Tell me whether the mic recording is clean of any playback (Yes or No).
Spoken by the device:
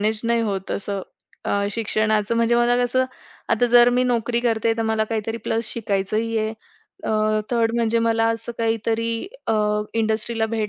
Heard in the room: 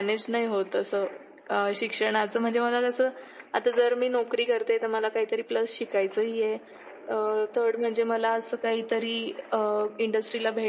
No